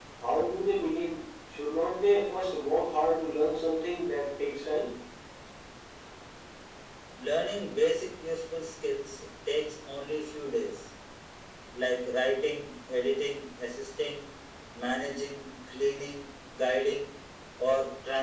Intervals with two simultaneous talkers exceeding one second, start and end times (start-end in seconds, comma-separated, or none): none